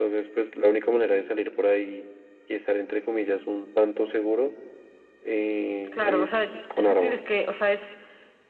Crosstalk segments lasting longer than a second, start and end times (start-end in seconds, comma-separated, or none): 5.9-7.3